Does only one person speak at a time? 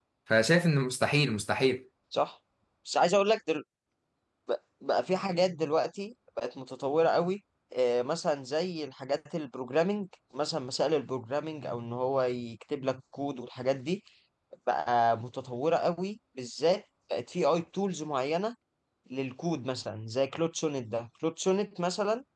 Yes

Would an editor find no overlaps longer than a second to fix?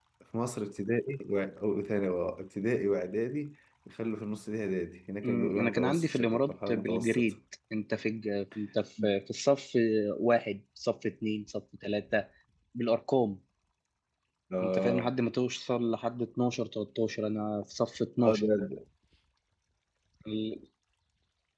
No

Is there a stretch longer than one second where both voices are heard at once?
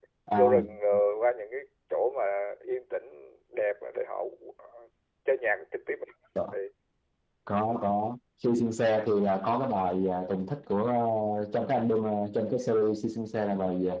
No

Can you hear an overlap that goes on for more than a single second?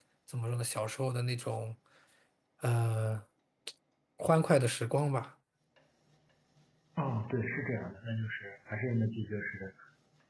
No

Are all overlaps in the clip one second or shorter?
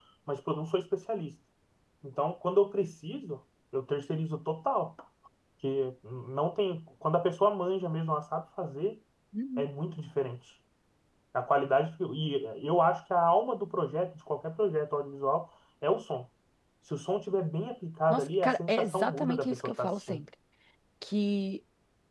No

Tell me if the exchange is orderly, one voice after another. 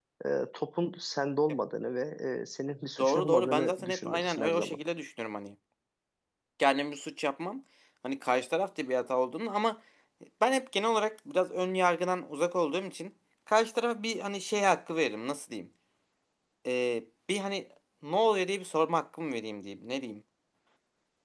No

